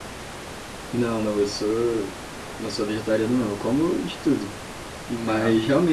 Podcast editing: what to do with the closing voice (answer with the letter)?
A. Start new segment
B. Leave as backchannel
B